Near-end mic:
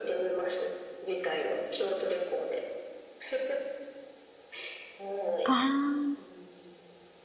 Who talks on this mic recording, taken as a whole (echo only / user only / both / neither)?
both